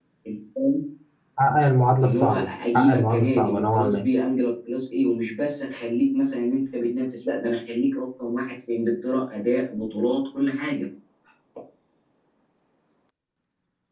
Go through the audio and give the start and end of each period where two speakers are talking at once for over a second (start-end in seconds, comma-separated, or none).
2.0-4.0